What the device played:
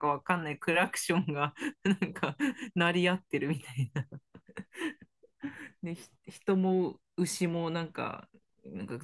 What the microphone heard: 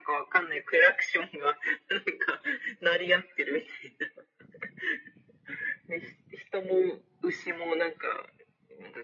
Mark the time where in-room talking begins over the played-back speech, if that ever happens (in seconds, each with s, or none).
none